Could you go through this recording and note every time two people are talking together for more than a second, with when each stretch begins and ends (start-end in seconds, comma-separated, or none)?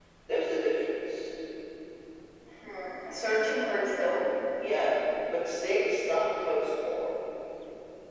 none